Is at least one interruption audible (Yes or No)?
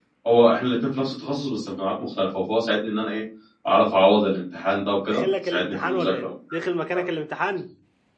Yes